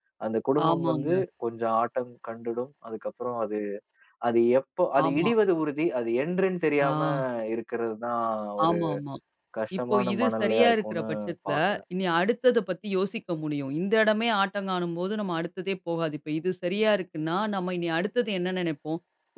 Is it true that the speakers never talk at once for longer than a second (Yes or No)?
No